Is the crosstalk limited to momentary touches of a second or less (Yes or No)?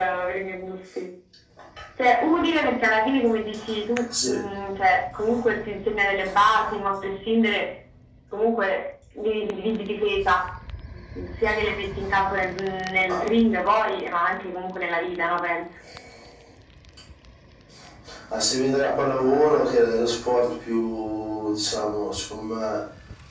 Yes